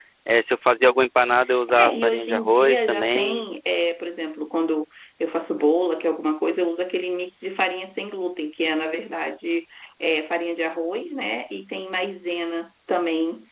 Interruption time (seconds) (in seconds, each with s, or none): 1.4 s